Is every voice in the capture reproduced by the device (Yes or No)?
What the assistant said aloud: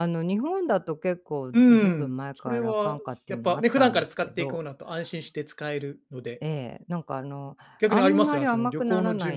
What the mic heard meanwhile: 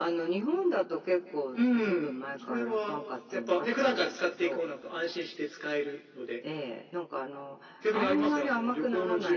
Yes